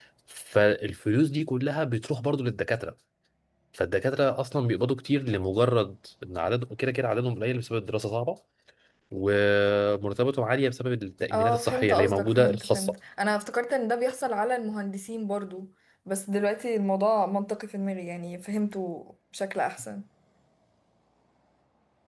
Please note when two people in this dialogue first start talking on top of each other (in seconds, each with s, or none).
11.3 s